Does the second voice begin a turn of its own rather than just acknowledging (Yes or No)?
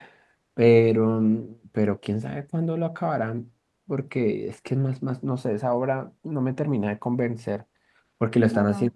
No